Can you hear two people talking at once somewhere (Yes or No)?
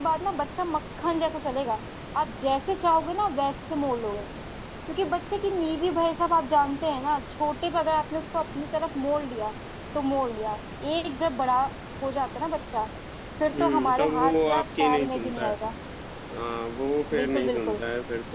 Yes